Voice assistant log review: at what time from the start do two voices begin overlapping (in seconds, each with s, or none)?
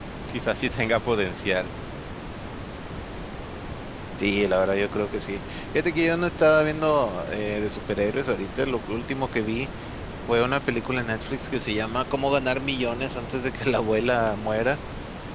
none